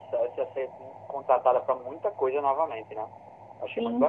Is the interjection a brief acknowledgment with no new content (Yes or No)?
No